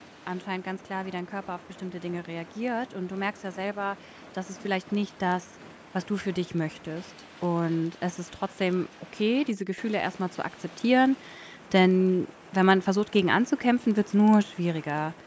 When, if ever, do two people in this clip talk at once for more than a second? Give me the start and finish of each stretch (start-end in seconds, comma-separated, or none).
none